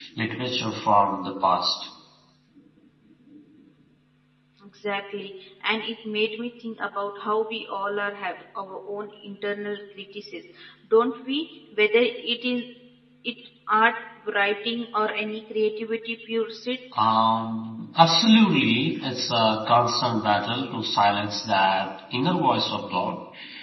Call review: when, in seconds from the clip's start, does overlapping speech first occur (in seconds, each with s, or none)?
none